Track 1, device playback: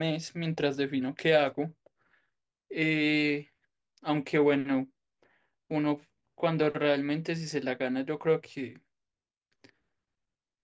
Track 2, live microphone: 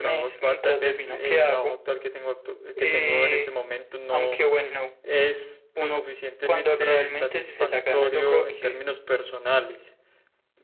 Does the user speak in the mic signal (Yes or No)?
Yes